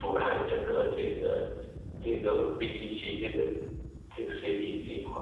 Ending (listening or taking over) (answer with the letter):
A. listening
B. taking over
B